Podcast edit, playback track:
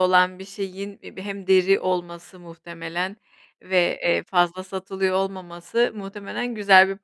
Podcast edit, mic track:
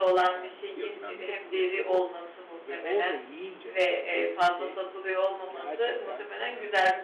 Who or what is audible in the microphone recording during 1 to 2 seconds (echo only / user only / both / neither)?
both